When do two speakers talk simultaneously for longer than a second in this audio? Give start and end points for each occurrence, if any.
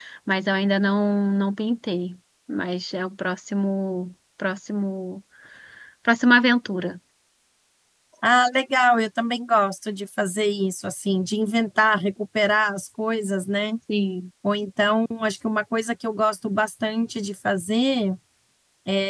none

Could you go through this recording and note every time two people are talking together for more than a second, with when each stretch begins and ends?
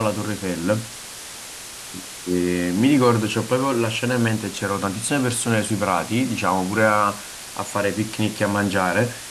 none

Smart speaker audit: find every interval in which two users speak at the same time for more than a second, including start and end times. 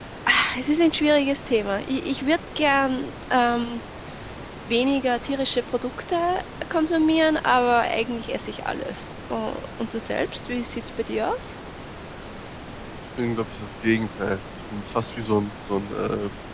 none

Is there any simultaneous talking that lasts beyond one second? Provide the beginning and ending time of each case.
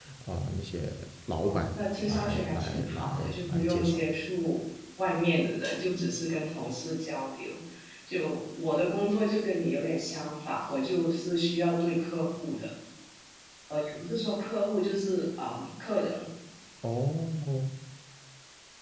1.4-4.0

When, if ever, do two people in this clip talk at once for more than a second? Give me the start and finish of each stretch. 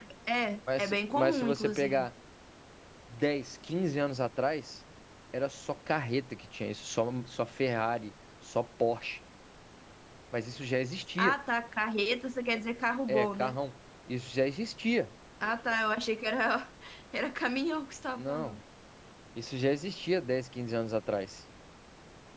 0.8-2.1

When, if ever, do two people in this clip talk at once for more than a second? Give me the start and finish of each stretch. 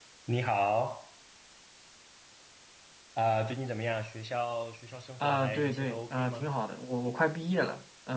5.2-6.5

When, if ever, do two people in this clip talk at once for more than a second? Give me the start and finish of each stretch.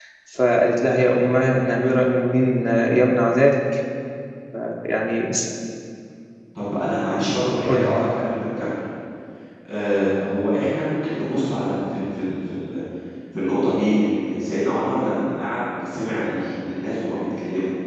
none

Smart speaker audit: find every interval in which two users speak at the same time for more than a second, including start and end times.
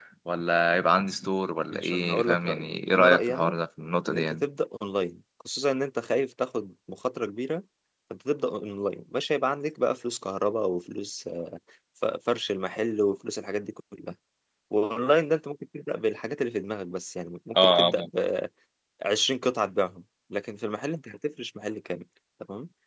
1.7-3.6

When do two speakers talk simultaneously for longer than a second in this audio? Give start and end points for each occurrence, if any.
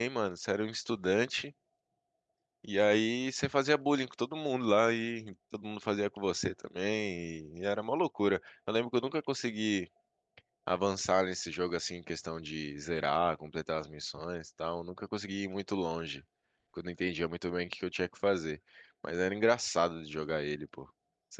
none

